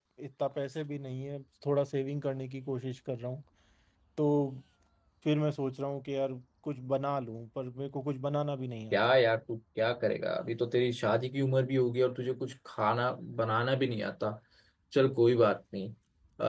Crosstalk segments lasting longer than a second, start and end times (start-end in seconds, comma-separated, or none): none